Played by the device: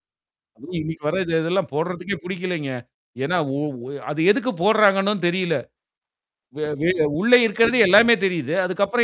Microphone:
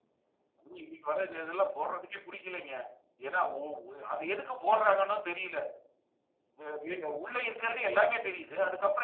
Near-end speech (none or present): none